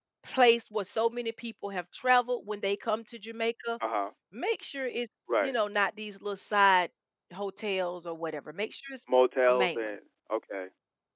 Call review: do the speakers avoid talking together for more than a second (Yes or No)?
Yes